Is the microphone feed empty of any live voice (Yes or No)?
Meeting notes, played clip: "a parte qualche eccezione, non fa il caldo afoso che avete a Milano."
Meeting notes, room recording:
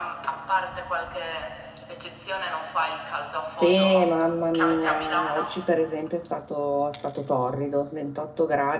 No